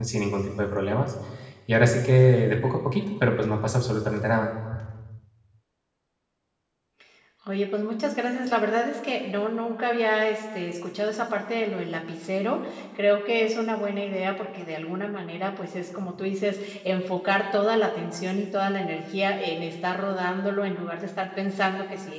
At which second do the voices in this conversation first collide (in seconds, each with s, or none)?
none